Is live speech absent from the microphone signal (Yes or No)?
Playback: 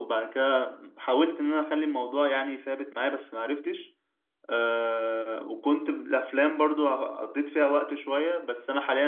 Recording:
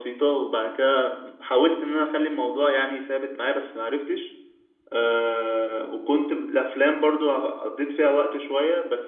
Yes